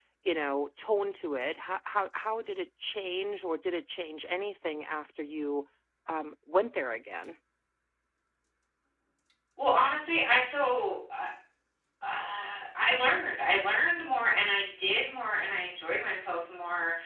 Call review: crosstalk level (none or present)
none